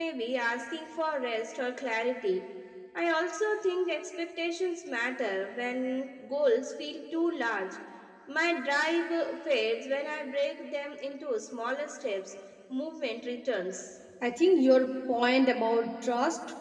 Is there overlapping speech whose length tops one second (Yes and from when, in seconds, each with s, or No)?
No